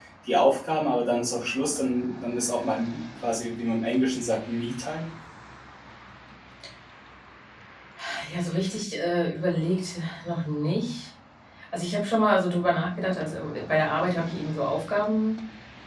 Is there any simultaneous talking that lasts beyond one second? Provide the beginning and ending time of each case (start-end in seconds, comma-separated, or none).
none